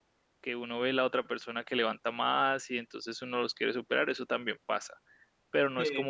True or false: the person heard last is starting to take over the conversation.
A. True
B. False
B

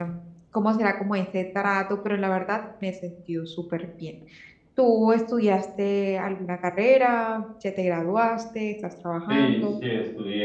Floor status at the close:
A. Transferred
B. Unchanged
A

